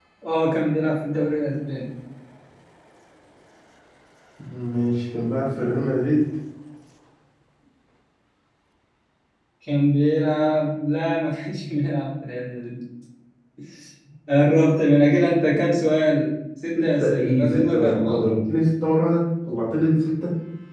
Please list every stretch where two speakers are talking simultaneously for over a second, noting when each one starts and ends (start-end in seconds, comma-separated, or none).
16.8-18.3